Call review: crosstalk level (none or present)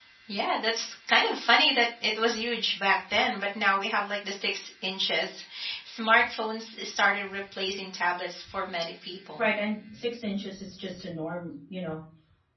none